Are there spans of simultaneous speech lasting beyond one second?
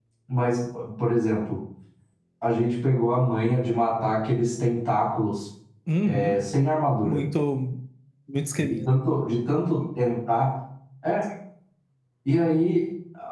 No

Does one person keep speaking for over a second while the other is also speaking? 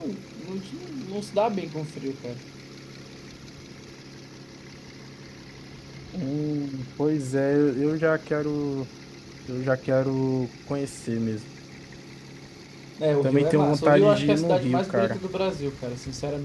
Yes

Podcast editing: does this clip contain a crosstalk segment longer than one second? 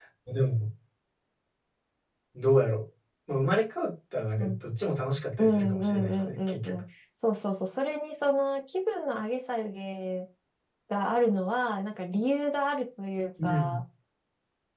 Yes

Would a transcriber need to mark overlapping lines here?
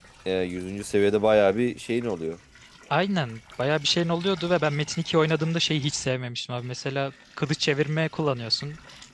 No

